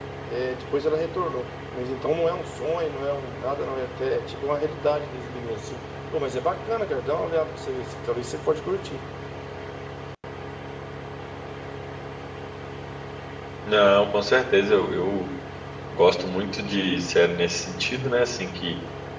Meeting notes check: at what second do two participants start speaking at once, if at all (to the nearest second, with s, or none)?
none